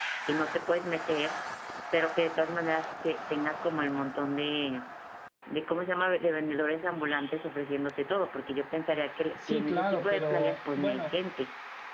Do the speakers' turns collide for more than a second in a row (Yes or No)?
Yes